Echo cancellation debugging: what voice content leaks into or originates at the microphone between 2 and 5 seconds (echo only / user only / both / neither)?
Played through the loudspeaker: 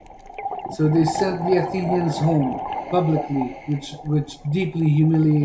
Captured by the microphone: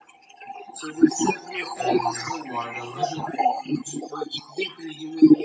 both